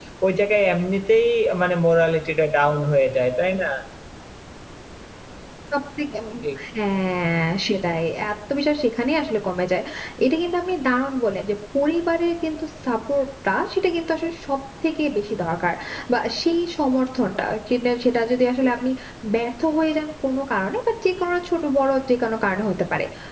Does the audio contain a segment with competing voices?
No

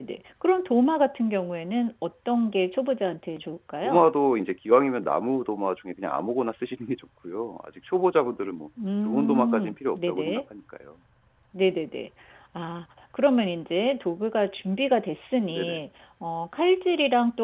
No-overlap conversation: No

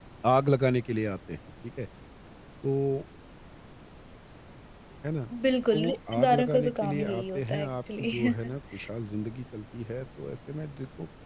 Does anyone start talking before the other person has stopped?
Yes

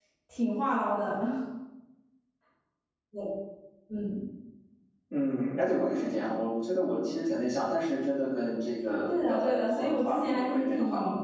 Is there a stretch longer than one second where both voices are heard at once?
Yes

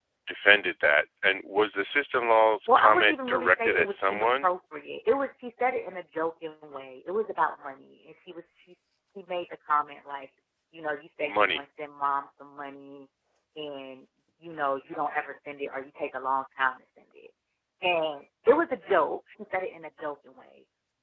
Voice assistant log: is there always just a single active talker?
No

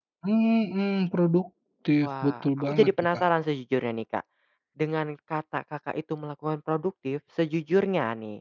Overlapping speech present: Yes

